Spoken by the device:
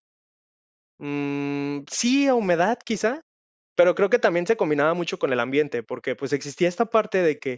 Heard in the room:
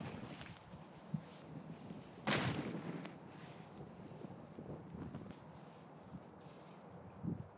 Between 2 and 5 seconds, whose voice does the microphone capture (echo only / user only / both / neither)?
neither